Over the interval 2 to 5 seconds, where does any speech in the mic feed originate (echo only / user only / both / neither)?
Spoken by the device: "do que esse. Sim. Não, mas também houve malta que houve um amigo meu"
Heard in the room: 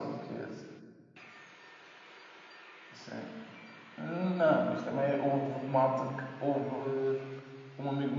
echo only